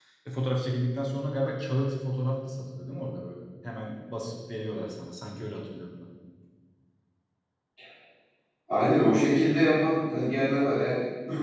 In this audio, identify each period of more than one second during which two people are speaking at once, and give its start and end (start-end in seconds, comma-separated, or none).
none